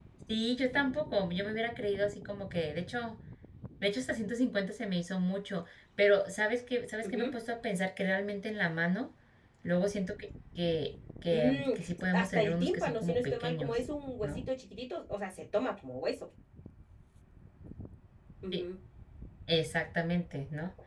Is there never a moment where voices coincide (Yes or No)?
No